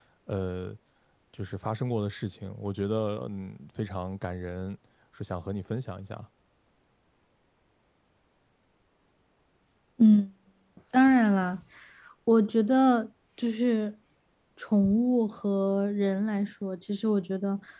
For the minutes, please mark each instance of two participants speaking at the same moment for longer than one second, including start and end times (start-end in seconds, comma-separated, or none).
none